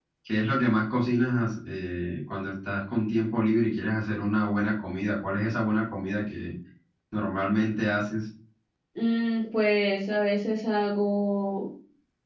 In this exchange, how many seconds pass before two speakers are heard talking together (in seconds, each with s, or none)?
none